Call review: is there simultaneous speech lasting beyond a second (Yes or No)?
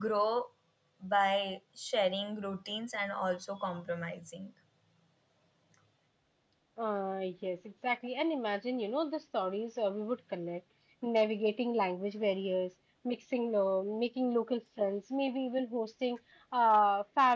No